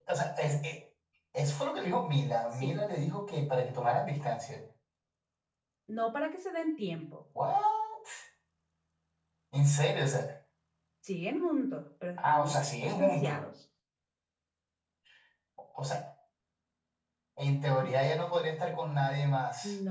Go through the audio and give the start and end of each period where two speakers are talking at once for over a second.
12.2-13.4

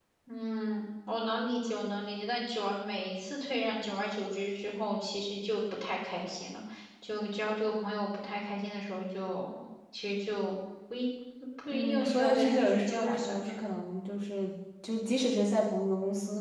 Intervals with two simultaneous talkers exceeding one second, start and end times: 11.7-13.5

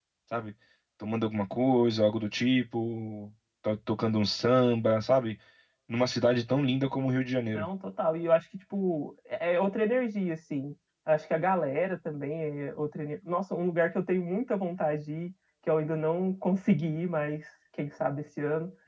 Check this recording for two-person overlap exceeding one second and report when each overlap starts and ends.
none

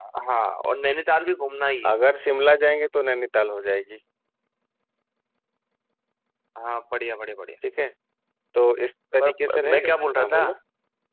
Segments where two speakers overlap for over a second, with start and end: 9.2-10.4

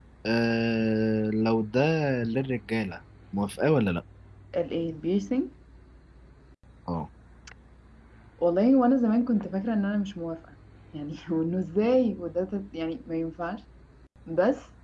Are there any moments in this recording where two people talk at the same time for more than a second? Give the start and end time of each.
none

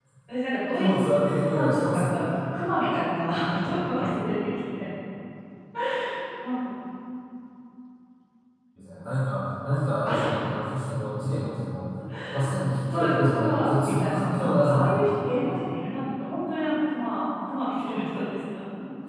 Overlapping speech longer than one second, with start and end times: 0.7-2.1, 12.9-15.2

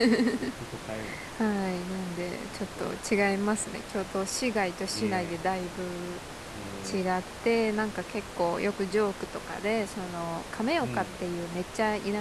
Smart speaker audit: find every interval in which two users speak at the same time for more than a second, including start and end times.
none

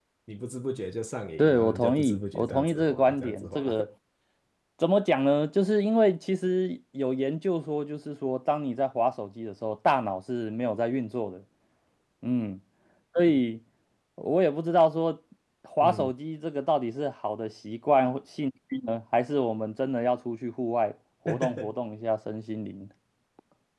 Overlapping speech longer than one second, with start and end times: 1.4-3.8

